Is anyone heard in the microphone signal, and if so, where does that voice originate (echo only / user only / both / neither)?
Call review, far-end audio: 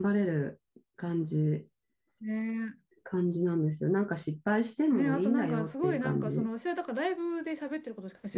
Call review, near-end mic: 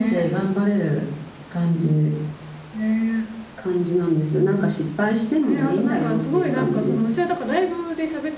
echo only